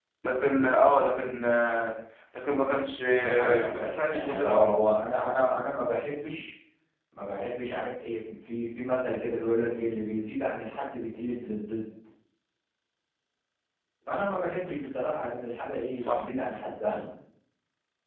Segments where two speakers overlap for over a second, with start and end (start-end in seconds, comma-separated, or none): 3.1-5.1